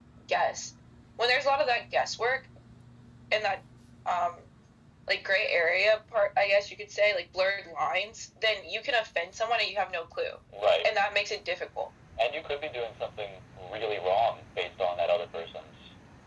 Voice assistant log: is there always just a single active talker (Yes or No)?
Yes